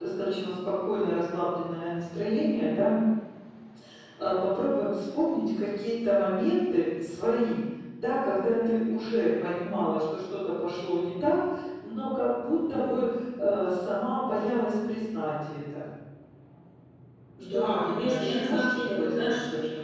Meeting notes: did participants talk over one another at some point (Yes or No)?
Yes